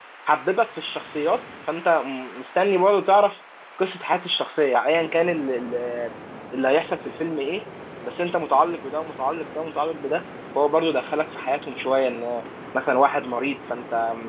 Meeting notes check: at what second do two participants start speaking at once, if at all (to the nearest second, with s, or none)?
none